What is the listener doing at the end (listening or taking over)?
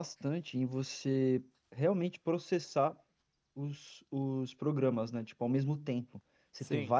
listening